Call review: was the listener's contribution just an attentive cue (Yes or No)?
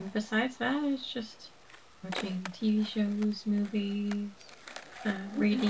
Yes